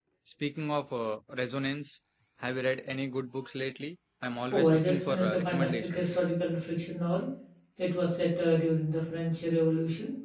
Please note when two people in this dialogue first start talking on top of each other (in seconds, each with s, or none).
4.5 s